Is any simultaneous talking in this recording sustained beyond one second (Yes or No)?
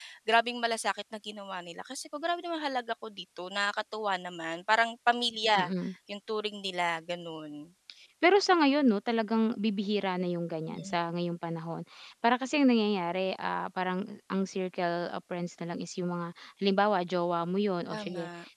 No